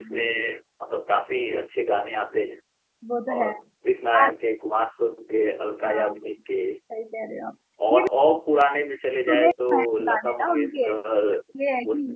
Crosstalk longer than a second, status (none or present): present